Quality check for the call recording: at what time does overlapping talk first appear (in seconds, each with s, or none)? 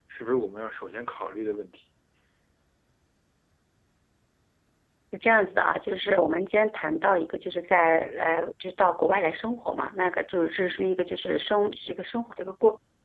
none